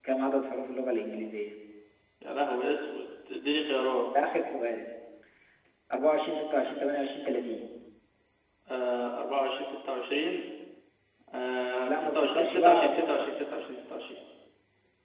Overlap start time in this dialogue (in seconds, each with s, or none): 11.9 s